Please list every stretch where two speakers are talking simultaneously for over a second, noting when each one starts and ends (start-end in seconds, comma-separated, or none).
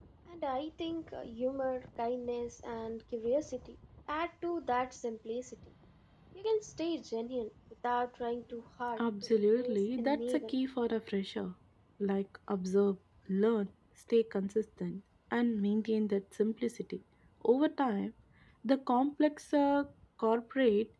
9.0-10.5